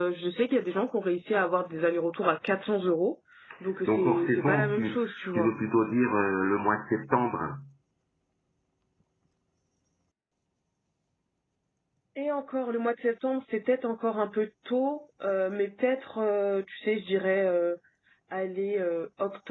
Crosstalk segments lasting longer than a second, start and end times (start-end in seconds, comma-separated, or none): 3.9-5.5